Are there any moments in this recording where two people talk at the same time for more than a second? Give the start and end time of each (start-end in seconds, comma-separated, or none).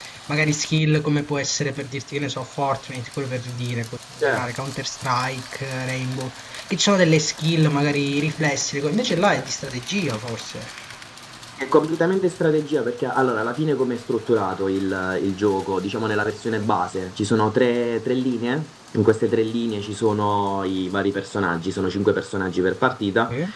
none